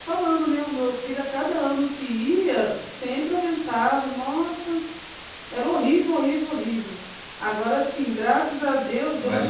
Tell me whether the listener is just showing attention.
Yes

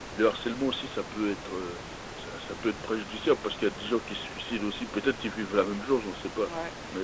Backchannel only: No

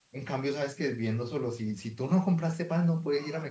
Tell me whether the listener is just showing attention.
No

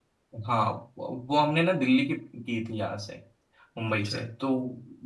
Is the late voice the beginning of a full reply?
No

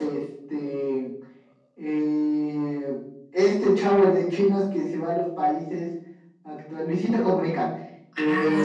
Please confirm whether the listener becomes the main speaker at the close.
No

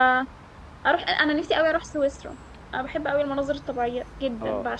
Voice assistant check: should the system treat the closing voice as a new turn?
Yes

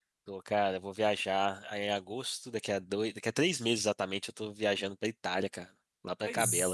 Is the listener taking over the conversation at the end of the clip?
Yes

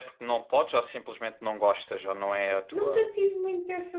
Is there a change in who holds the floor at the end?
Yes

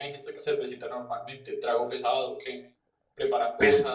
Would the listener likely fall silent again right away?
No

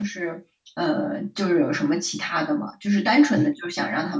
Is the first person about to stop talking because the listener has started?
No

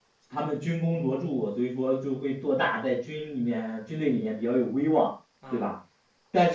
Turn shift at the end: No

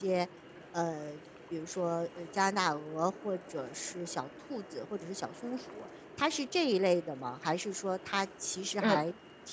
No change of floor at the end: Yes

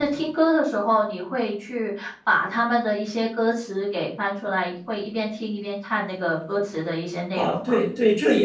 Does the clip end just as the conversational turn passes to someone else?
Yes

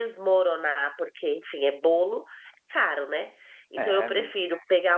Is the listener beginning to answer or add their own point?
No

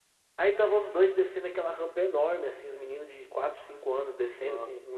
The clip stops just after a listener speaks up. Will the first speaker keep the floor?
Yes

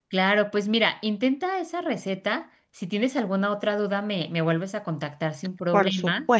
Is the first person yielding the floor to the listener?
Yes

